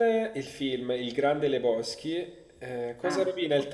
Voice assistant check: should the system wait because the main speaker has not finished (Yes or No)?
Yes